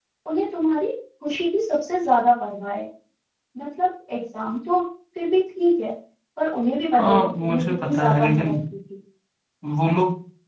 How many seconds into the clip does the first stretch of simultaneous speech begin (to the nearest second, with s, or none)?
7 s